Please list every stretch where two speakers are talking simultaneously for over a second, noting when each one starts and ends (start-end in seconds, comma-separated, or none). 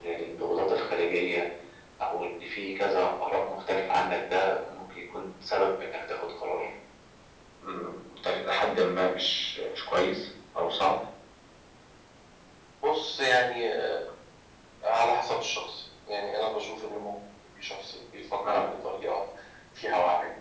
none